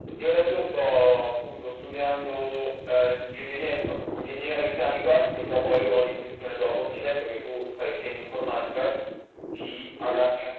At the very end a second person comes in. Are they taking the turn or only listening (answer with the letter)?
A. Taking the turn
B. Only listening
B